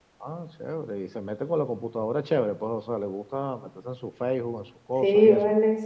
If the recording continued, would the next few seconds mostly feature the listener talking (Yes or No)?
Yes